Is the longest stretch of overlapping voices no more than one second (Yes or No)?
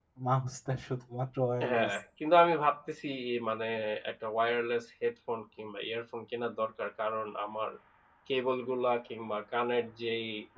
Yes